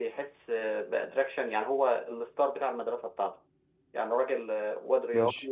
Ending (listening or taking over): listening